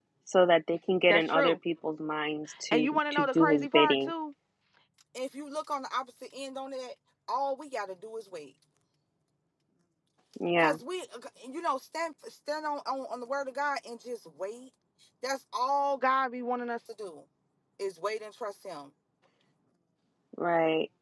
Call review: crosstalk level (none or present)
present